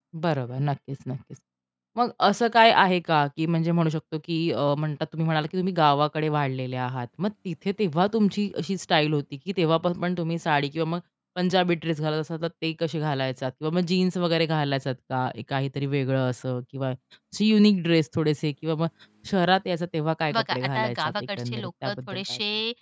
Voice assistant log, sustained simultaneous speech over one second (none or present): present